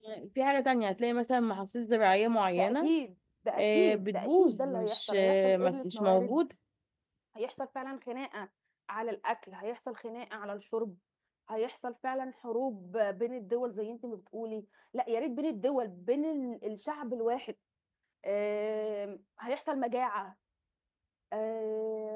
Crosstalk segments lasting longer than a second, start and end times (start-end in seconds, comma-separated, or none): 3.6-6.4